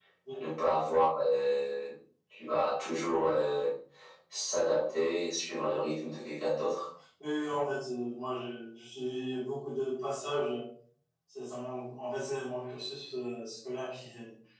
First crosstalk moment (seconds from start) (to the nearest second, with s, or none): none